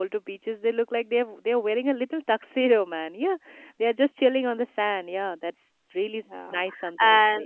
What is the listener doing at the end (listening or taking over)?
taking over